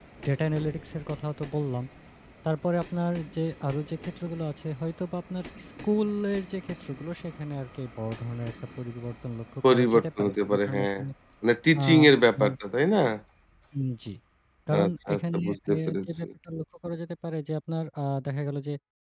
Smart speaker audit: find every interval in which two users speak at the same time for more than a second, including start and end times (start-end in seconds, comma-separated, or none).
9.6-10.9, 14.7-16.2